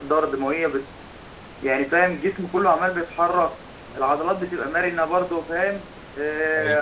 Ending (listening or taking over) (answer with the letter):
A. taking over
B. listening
B